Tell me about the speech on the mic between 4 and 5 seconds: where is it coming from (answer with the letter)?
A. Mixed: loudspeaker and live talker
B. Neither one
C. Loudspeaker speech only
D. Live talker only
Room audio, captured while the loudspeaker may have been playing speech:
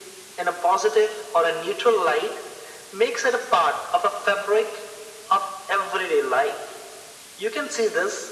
C